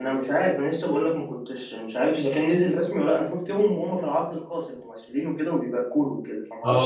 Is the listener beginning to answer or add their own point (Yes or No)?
Yes